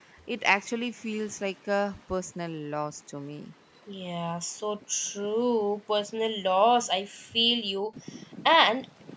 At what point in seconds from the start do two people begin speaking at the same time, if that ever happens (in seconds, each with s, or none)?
none